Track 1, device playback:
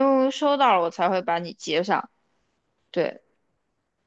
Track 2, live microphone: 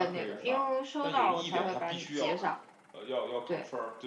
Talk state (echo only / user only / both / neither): both